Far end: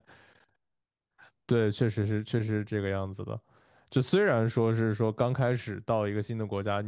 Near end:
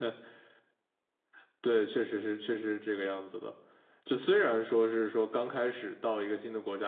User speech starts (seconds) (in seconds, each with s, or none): none